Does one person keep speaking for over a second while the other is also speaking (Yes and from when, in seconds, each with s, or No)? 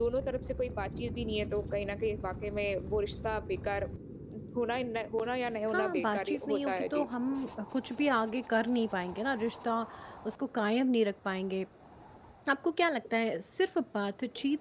Yes, from 5.7 s